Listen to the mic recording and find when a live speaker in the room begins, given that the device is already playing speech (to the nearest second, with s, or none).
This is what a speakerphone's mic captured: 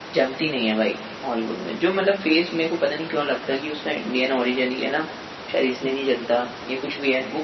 none